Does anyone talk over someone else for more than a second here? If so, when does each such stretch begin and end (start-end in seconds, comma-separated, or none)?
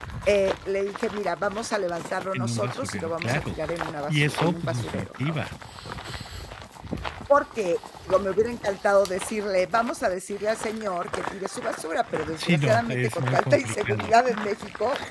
2.3-3.6, 4.1-5.3, 12.1-14.1